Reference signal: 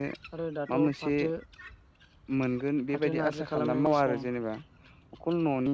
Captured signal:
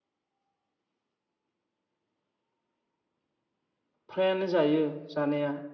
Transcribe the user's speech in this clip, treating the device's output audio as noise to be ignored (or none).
फ्रायानो जायो जानाया।